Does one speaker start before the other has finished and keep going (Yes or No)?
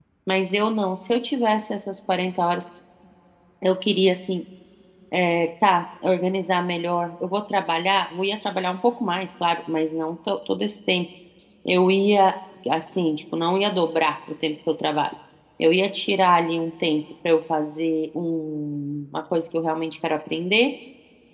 No